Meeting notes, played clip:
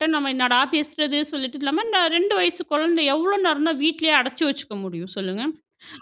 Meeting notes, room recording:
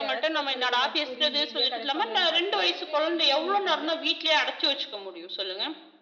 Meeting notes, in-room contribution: present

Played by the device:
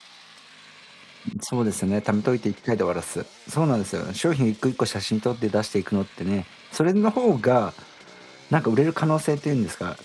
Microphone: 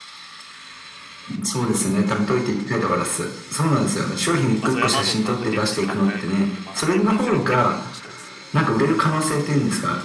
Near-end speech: present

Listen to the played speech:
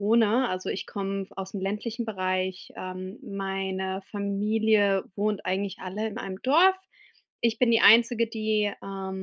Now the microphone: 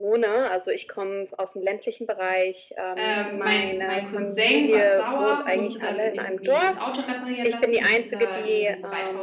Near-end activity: present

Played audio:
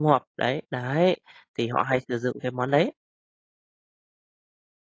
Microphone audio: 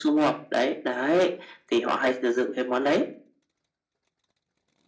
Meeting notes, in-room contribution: none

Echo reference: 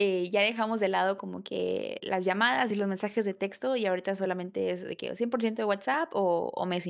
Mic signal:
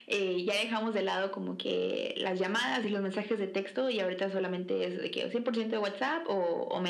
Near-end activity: none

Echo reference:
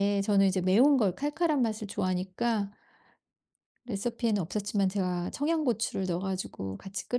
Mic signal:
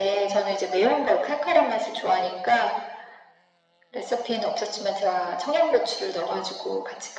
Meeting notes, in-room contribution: none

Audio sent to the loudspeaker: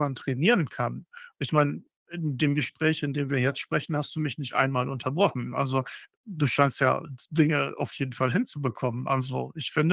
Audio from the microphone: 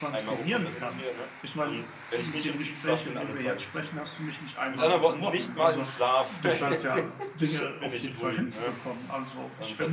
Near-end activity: present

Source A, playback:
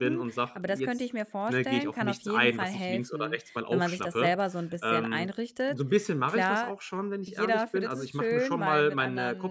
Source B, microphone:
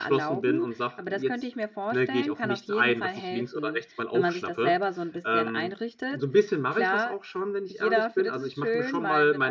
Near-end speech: none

